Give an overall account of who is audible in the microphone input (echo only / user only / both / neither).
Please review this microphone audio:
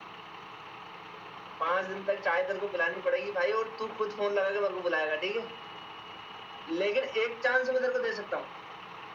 echo only